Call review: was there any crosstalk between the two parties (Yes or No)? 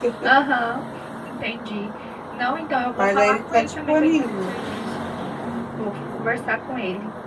Yes